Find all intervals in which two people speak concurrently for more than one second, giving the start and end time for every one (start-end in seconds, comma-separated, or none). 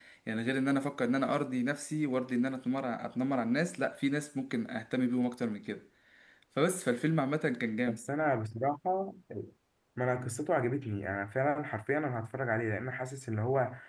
none